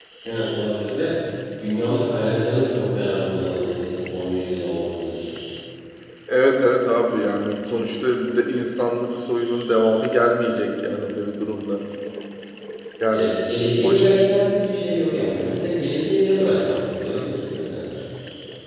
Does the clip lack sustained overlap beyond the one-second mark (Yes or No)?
Yes